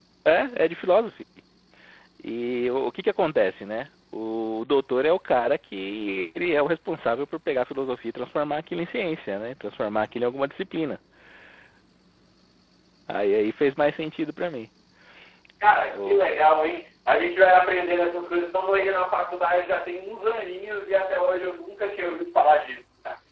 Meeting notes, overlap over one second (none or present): none